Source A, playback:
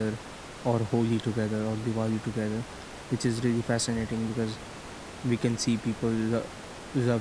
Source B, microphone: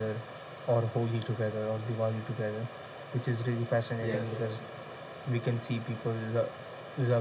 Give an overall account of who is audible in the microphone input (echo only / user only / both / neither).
both